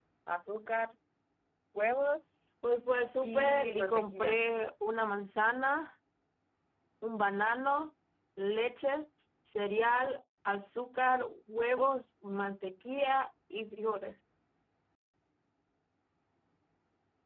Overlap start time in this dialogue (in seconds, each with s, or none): 3.2 s